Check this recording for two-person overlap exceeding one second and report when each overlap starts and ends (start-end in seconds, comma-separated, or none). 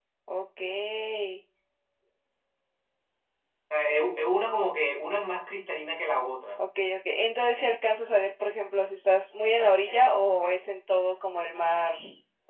none